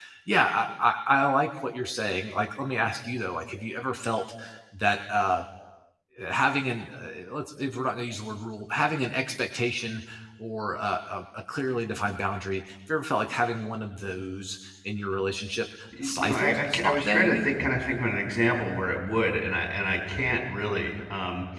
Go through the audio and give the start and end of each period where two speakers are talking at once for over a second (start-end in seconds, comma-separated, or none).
16.0-17.5